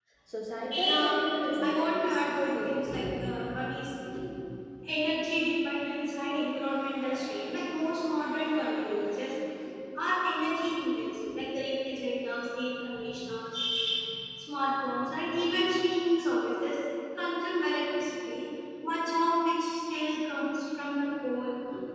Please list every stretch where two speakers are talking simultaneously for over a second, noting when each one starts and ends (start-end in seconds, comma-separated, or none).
1.6-2.8